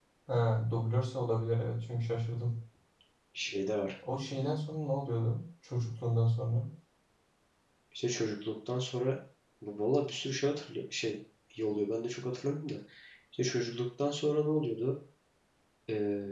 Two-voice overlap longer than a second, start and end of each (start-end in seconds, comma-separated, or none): none